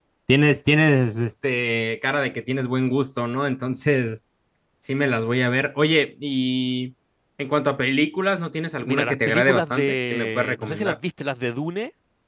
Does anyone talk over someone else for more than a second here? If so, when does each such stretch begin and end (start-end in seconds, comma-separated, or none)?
8.8-11.0